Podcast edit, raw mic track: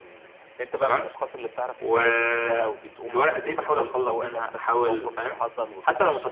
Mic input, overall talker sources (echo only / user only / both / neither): both